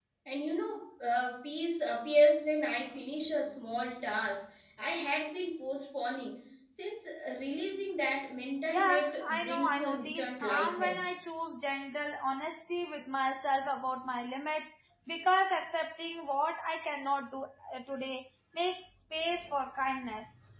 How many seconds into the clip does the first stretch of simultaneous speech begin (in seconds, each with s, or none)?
8.7 s